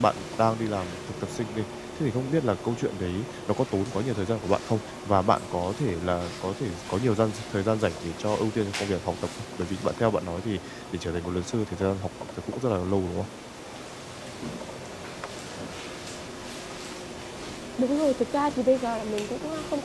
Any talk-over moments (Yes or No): No